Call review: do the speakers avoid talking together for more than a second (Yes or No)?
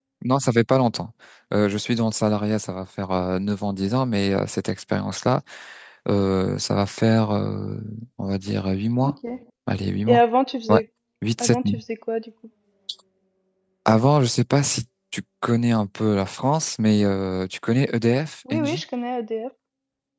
Yes